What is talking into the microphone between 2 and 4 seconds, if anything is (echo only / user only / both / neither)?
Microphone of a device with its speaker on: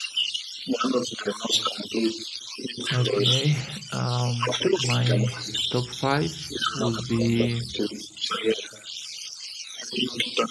both